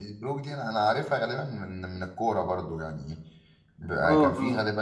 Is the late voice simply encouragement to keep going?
Yes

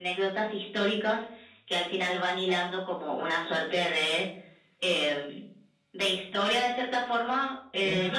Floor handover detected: No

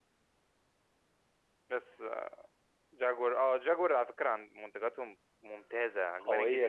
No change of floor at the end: No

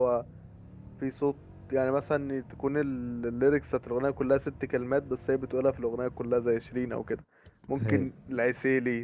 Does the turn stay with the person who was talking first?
Yes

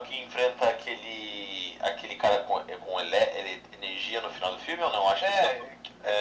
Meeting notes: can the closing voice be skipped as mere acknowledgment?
No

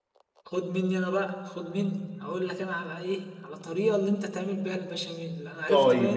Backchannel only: No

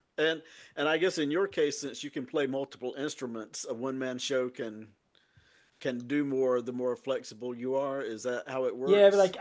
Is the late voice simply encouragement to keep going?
No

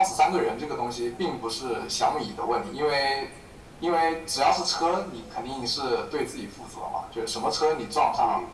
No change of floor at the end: Yes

